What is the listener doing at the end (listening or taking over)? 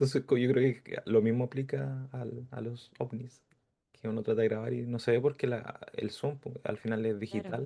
listening